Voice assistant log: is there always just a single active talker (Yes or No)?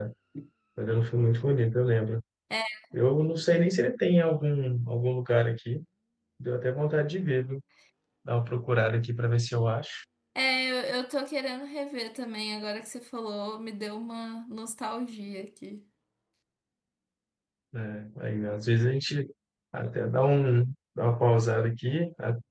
Yes